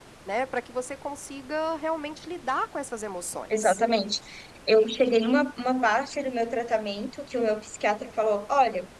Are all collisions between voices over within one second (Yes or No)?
Yes